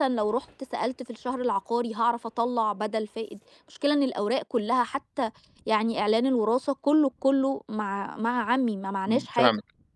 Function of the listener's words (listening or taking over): taking over